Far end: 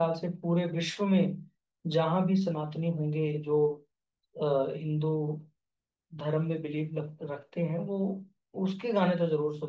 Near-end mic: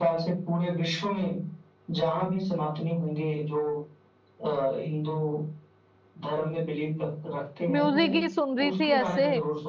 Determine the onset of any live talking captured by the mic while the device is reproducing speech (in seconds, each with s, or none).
7.7 s